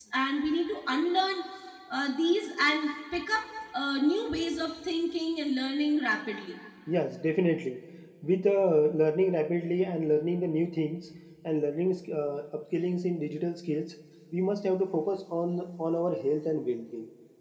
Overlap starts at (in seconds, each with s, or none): none